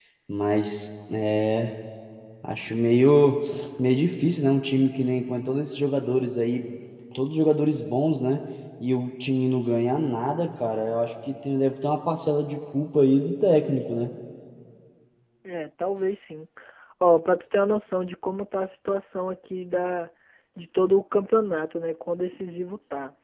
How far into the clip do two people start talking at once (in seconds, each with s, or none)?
none